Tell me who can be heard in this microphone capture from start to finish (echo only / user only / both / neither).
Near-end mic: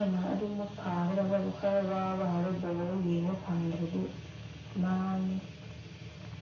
echo only